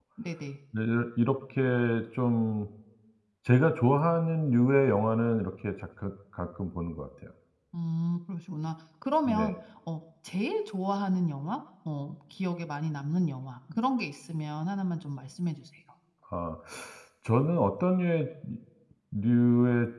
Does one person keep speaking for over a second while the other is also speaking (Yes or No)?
No